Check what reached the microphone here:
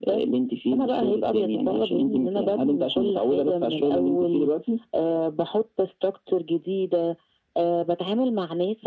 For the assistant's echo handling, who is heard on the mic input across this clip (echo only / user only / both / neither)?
echo only